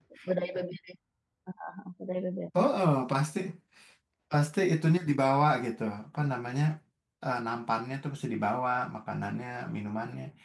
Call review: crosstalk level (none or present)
none